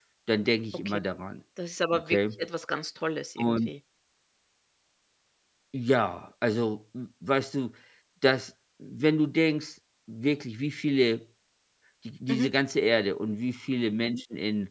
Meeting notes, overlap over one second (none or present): none